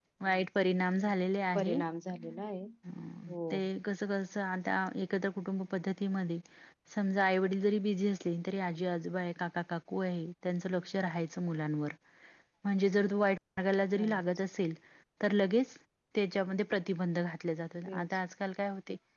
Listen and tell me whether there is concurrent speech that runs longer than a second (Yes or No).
No